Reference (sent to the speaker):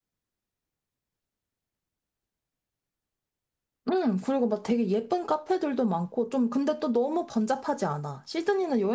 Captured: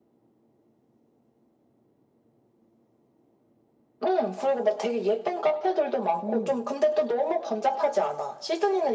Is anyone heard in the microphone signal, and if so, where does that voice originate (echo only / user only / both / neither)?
both